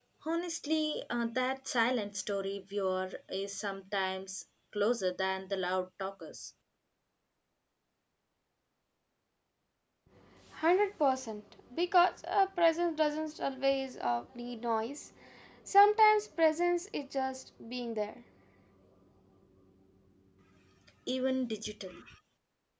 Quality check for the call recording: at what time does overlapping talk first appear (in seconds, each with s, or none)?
none